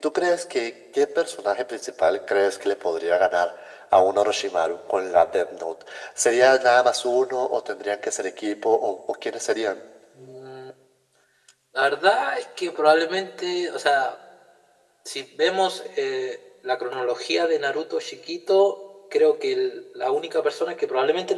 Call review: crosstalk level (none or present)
none